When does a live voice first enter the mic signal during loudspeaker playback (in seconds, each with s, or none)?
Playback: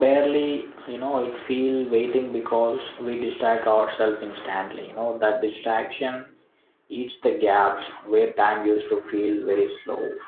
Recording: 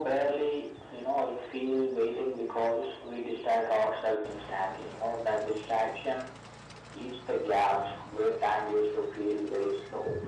none